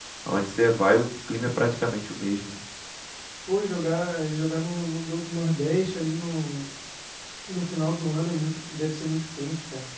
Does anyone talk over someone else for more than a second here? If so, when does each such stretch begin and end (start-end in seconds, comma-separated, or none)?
none